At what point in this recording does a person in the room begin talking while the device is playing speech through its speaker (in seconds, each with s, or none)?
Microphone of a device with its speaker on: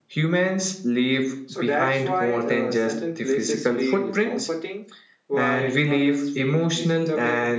1.4 s